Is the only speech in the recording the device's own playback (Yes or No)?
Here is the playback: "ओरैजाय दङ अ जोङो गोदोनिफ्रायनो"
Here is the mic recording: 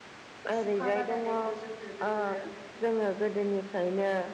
No